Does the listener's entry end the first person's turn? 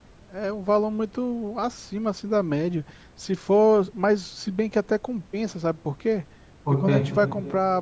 No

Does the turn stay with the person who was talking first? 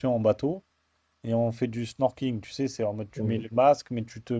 Yes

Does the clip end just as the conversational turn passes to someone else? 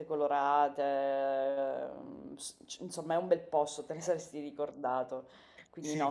Yes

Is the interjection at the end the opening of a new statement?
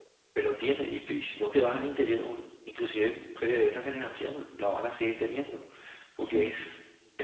No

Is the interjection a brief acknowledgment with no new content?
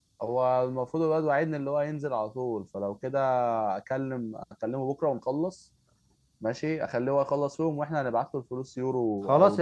No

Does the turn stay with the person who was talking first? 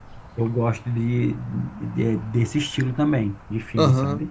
No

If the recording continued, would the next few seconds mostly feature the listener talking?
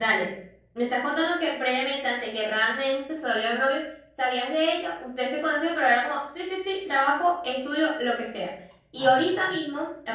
No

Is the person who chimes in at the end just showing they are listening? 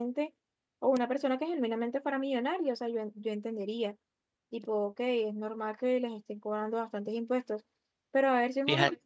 Yes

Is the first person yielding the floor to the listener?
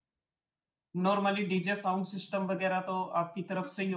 Yes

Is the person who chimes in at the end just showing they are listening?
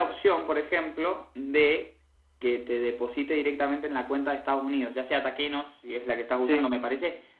Yes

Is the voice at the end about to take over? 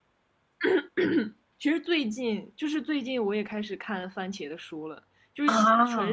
No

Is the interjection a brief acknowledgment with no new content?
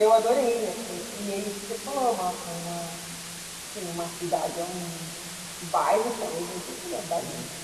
Yes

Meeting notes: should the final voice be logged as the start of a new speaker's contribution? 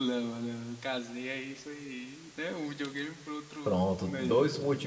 Yes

